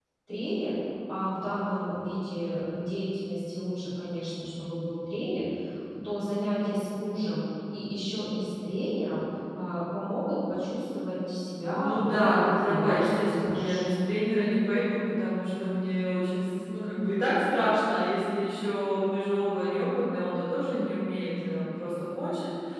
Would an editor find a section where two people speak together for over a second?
Yes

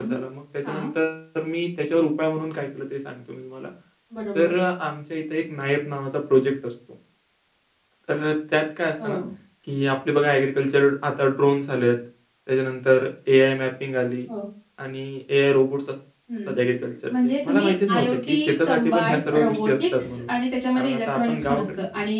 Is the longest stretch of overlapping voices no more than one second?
No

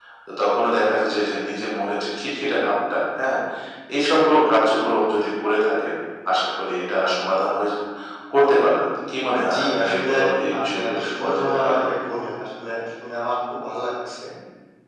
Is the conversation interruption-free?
No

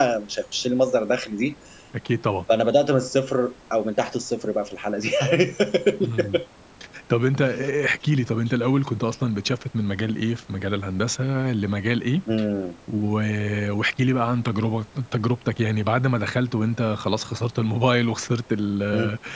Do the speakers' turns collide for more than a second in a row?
No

